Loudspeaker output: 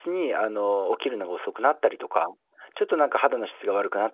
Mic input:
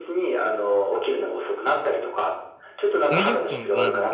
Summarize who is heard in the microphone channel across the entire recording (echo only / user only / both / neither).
both